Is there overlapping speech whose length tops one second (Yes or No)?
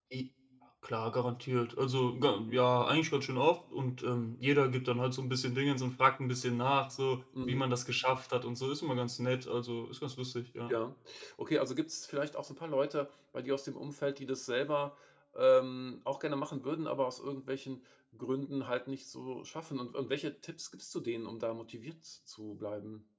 No